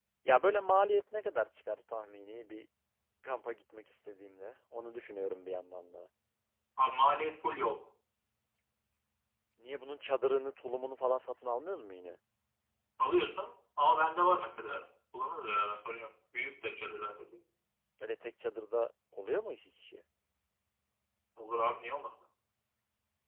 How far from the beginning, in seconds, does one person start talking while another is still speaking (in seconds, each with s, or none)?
none